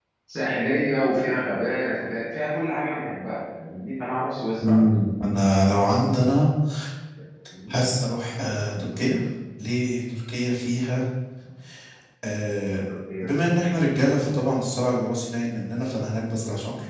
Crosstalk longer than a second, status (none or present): none